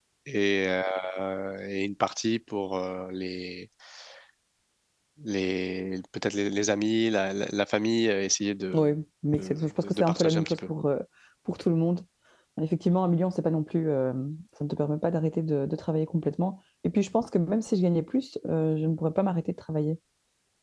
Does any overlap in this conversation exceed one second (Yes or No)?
Yes